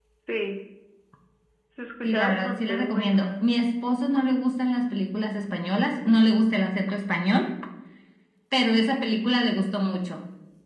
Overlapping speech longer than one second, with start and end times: 2.0-3.4

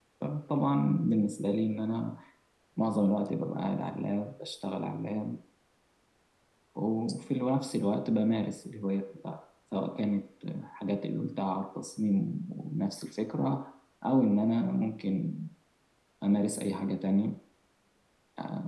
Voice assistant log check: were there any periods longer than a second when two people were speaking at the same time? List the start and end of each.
none

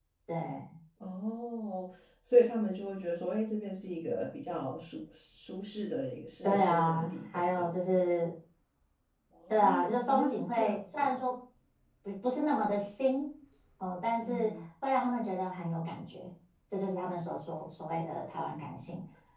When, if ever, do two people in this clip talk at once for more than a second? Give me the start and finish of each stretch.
6.4-8.0, 9.5-11.1

